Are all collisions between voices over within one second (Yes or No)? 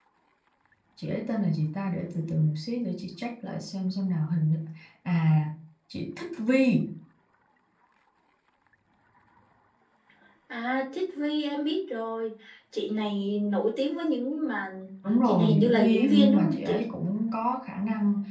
No